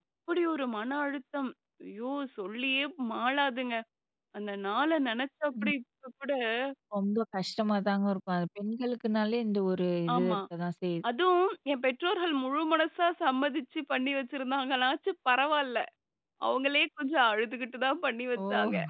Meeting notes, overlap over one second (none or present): none